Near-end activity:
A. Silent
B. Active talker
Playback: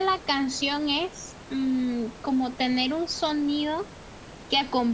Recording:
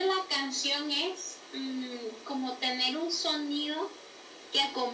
A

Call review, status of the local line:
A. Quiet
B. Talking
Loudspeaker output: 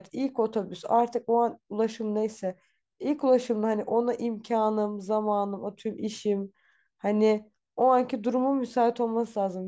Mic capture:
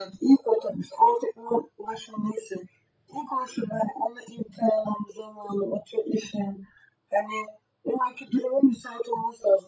A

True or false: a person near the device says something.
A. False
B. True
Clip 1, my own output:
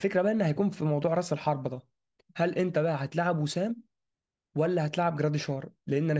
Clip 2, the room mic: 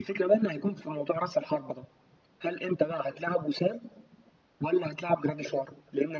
A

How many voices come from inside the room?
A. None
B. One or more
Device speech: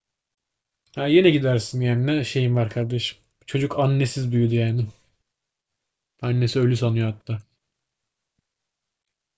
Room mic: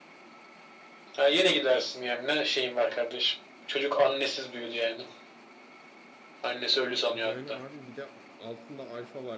B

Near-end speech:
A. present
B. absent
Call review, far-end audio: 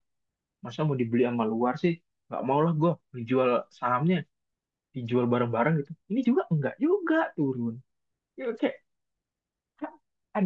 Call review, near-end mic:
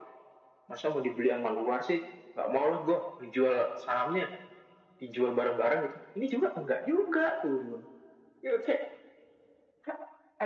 B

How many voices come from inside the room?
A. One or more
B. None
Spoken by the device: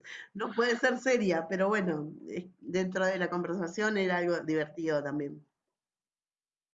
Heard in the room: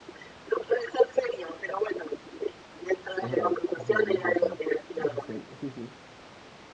A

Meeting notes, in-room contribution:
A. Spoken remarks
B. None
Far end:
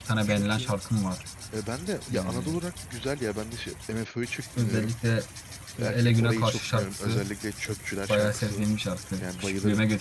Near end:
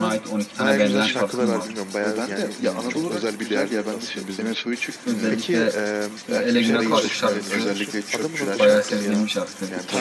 A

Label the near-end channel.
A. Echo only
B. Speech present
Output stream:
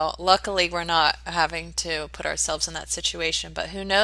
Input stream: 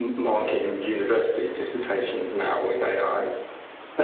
B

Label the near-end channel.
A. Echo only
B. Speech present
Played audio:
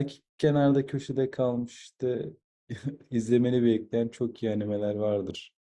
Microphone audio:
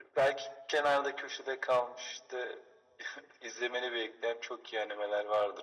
A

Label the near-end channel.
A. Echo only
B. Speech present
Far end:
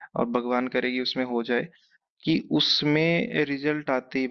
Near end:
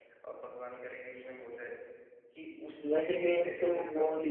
B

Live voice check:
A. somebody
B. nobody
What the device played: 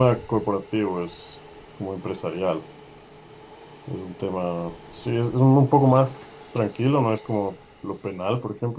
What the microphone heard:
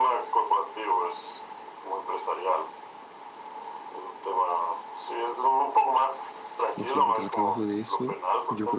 A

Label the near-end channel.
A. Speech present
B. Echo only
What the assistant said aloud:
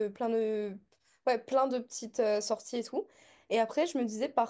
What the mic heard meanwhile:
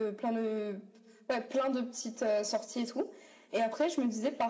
B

